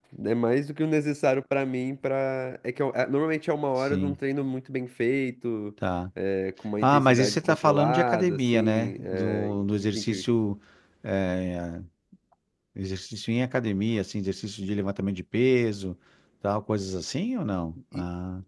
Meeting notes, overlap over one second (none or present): present